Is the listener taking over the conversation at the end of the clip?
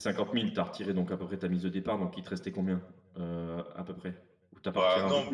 Yes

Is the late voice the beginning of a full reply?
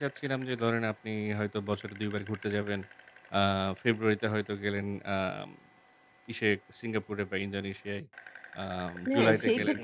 Yes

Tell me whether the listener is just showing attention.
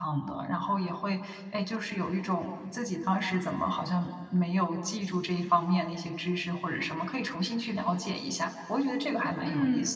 No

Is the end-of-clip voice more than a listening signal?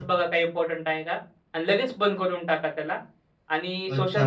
Yes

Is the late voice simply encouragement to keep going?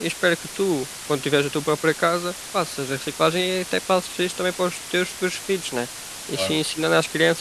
Yes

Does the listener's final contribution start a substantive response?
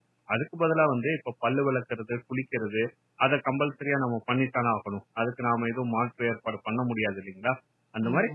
No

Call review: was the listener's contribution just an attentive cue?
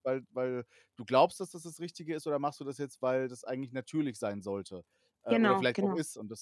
Yes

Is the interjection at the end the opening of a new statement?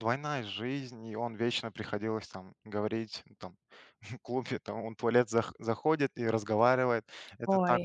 No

